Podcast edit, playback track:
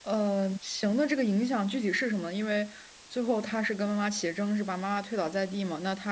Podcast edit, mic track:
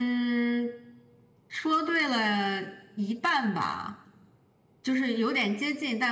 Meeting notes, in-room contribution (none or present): present